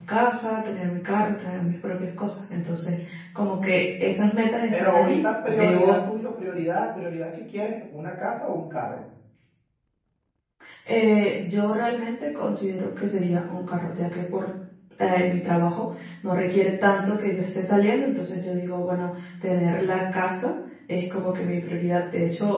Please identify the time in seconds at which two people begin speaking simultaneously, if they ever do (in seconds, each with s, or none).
4.7 s